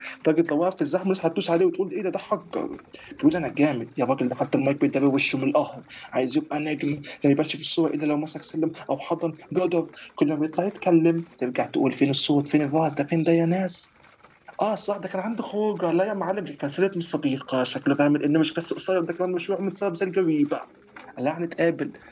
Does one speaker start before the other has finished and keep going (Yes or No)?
No